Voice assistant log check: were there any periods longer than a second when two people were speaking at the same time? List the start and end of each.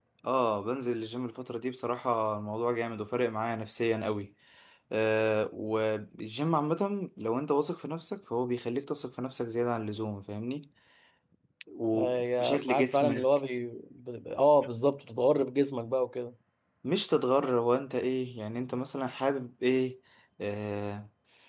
11.9-13.3

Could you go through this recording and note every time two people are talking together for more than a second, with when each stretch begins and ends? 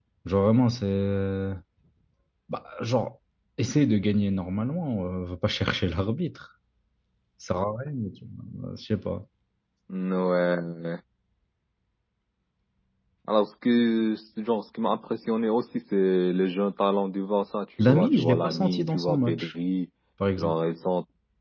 17.8-19.5

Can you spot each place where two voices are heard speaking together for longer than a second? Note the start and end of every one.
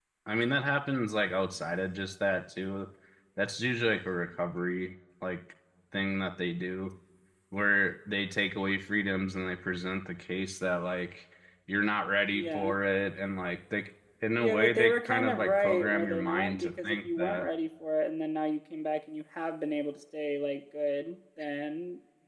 14.4-17.4

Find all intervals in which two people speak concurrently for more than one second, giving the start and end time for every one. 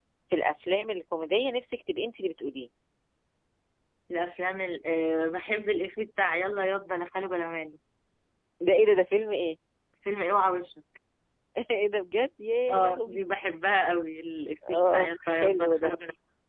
14.7-15.9

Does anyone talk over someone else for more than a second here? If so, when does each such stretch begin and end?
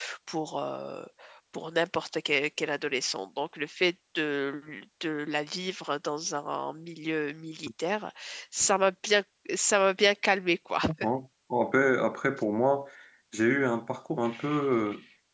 none

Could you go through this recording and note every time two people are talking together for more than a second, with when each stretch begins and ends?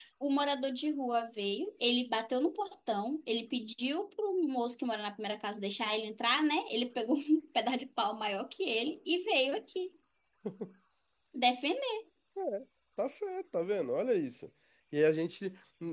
none

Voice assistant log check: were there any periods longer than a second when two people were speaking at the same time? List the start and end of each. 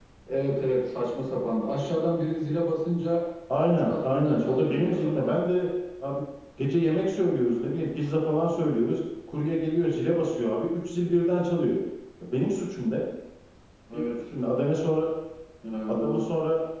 3.7-5.4

